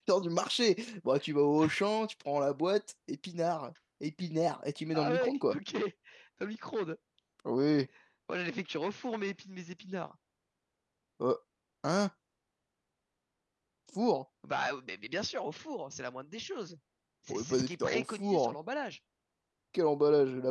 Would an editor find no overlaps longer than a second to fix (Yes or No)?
No